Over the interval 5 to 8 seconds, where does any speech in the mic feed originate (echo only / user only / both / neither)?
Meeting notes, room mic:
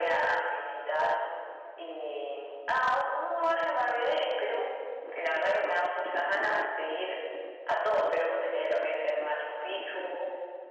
echo only